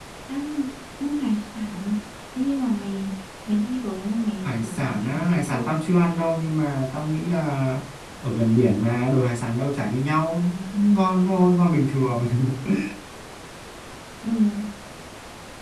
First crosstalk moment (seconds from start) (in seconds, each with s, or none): 4.4 s